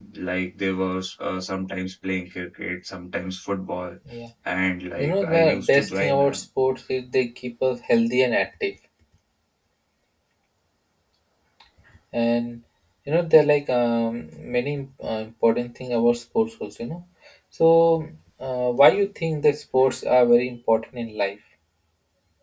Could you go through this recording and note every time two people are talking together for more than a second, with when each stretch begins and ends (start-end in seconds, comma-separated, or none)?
5.0-6.4